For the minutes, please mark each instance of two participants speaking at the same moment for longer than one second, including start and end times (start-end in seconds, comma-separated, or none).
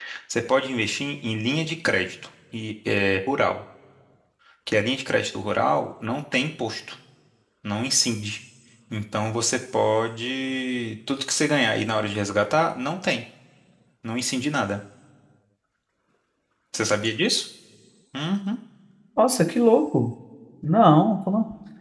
none